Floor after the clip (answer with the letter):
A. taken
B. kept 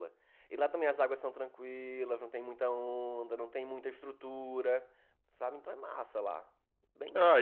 A